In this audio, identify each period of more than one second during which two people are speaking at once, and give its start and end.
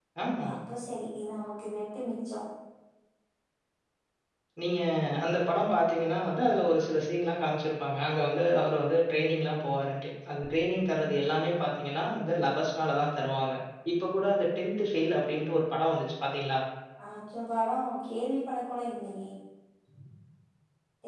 none

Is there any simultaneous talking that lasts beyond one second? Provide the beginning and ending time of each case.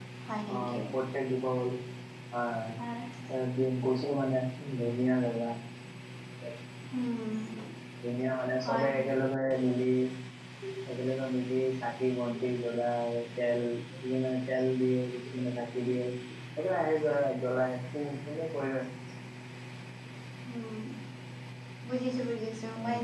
none

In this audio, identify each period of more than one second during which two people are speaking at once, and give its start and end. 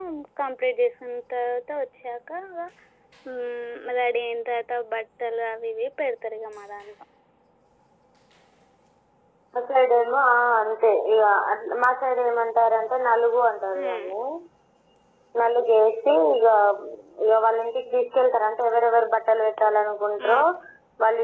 none

